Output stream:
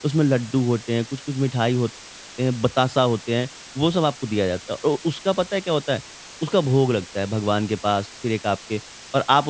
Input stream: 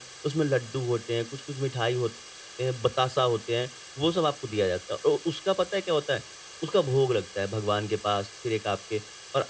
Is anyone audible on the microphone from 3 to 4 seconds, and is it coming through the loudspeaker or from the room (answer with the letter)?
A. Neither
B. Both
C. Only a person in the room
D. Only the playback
D